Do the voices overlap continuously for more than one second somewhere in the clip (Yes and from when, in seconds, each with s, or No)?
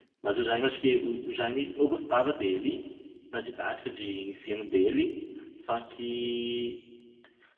No